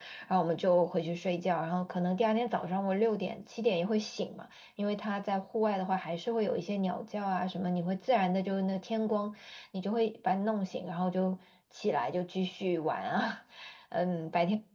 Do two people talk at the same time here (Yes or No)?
No